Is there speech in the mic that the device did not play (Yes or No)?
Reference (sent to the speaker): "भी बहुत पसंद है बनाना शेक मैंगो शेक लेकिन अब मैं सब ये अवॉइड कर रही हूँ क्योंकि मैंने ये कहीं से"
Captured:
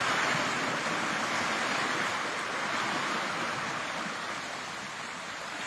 No